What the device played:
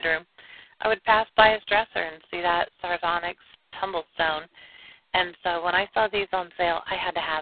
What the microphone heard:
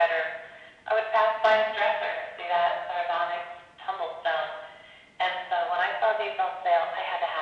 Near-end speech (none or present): none